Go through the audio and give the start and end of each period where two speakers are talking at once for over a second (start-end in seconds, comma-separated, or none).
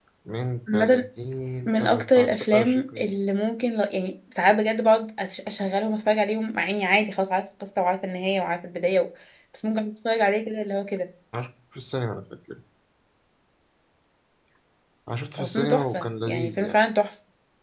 1.7-3.2, 15.4-16.8